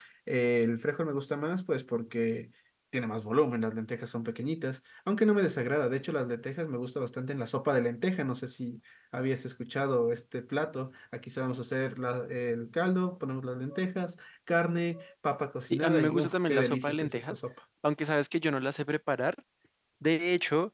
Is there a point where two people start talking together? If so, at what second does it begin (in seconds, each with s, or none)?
15.7 s